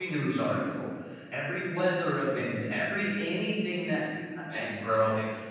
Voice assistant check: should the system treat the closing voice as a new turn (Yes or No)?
No